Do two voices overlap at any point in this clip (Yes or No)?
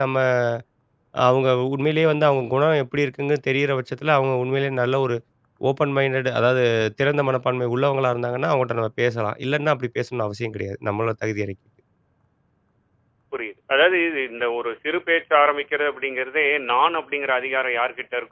No